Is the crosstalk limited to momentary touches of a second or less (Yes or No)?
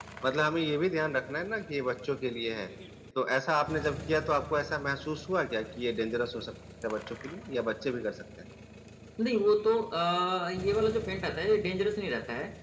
Yes